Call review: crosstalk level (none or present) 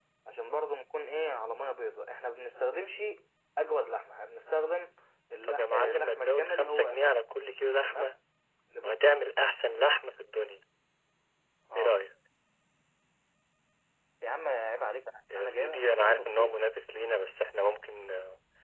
present